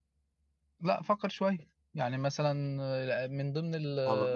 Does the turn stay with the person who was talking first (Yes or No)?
No